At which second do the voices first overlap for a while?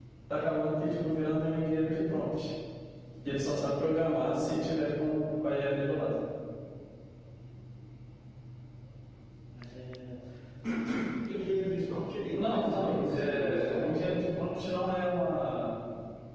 12.4 s

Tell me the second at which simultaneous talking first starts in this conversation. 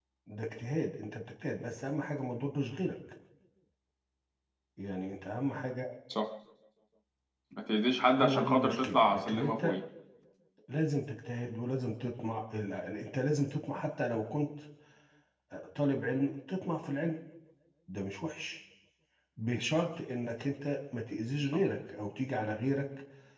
8.2 s

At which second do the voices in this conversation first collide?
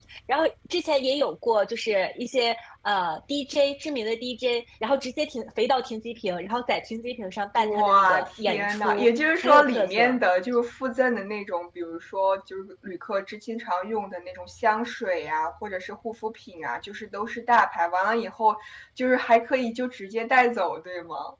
7.6 s

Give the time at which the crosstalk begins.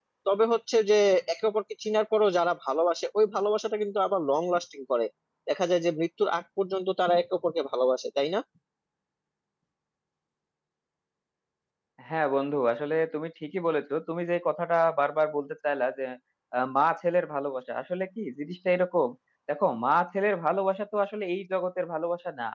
none

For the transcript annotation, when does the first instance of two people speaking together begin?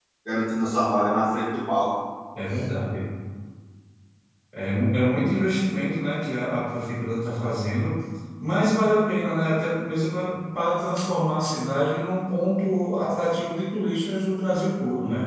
none

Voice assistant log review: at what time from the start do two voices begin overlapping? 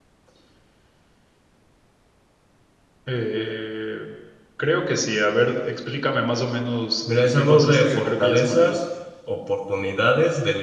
7.1 s

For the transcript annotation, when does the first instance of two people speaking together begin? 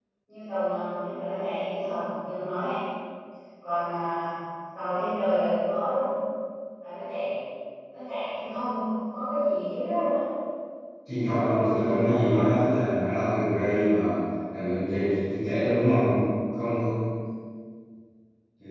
11.4 s

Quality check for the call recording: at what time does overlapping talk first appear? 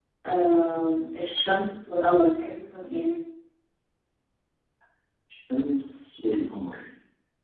none

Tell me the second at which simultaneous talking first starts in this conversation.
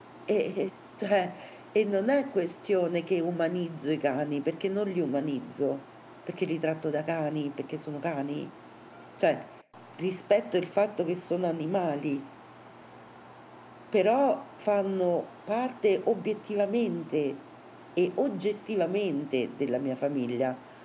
none

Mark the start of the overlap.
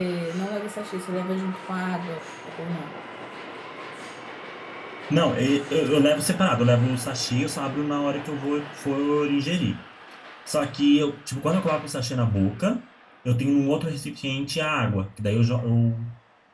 none

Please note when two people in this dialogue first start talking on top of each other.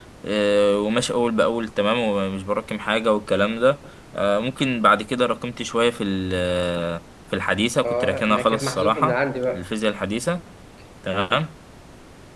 7.8 s

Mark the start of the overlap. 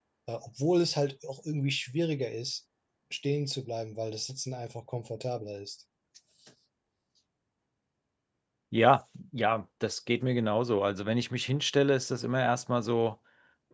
none

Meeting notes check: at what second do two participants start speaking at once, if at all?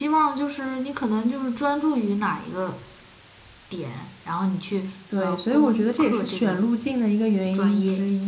5.2 s

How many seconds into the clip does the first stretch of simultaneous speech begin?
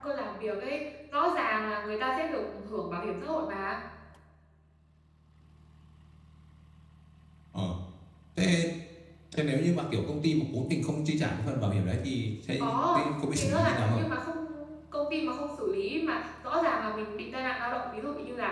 12.6 s

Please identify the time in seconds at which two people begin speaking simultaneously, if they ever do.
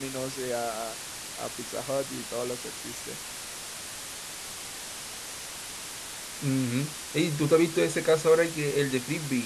none

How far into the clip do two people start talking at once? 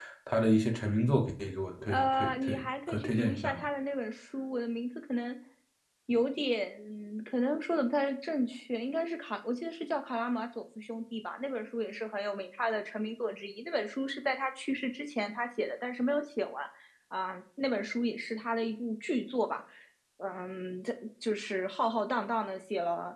1.9 s

